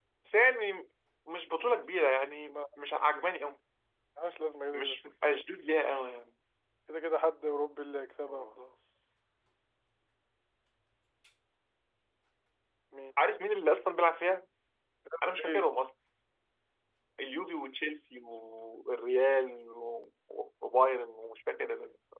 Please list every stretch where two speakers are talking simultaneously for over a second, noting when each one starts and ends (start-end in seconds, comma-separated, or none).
none